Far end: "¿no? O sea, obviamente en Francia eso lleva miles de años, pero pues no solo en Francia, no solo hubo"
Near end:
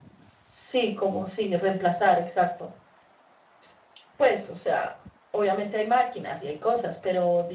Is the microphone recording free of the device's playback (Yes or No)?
Yes